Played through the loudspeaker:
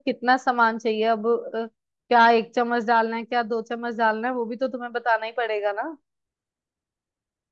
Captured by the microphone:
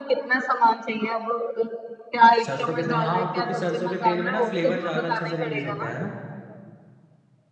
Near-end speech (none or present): present